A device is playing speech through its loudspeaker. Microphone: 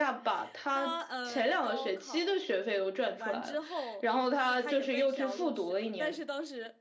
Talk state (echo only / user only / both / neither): both